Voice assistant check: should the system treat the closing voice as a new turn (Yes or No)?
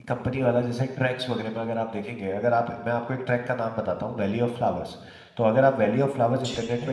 No